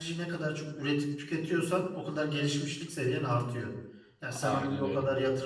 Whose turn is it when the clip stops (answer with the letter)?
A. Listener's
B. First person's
B